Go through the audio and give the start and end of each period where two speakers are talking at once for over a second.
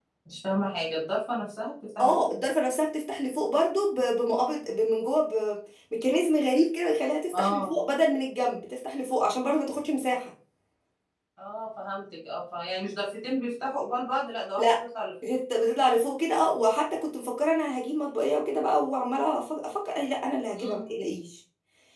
none

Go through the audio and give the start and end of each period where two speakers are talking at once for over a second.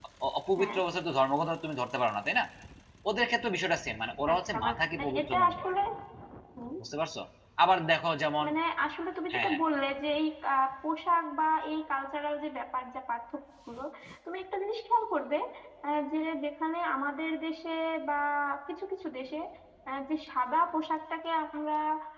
4.3-5.7

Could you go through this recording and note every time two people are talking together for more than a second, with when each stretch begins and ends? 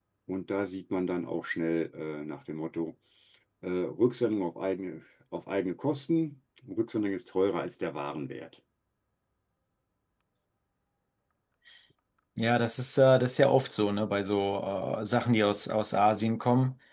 none

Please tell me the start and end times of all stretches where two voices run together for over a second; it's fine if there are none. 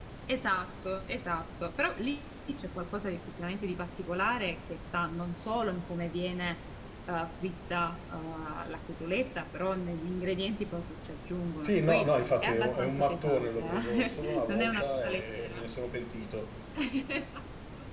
11.6-15.6

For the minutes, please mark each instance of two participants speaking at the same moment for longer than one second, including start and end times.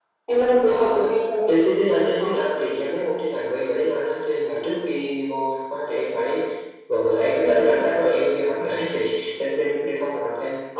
none

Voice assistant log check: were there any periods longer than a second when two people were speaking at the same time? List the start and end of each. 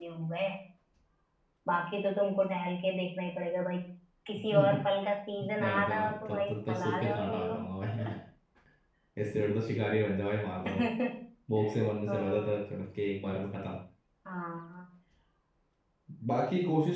5.6-7.6

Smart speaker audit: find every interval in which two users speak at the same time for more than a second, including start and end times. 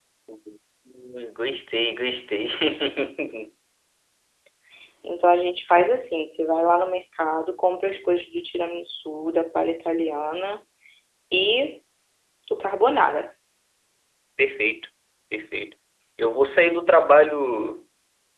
none

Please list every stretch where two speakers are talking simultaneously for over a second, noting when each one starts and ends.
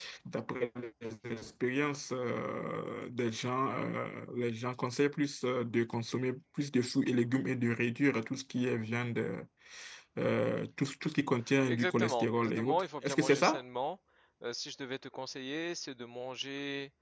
11.7-13.6

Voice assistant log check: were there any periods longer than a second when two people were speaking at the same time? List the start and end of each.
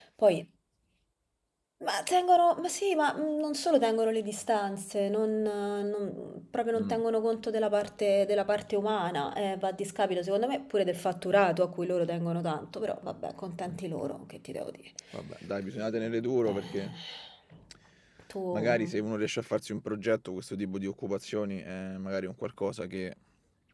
none

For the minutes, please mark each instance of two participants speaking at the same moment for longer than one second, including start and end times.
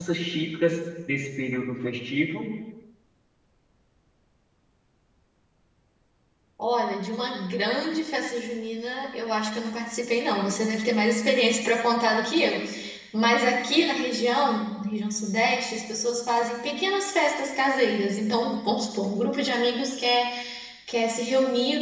none

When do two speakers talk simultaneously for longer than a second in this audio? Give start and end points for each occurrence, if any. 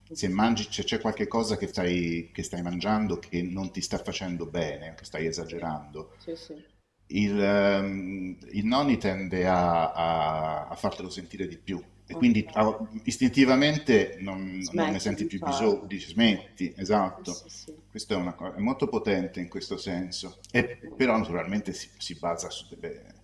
14.6-15.9

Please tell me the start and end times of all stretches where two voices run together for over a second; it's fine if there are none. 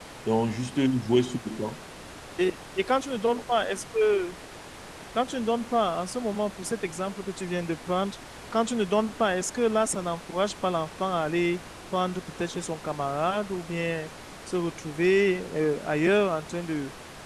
none

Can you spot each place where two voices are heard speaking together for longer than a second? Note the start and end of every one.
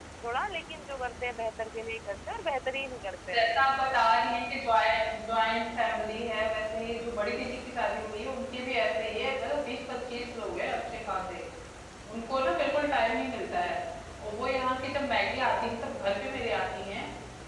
none

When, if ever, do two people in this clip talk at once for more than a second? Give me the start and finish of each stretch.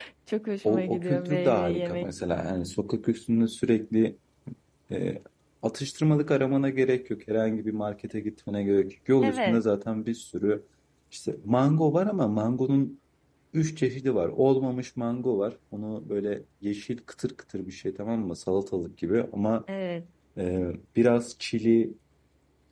0.6-2.1

